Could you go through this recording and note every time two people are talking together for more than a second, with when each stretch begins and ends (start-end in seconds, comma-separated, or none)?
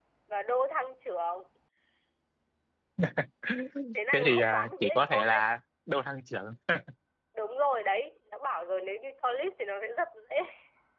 4.1-5.4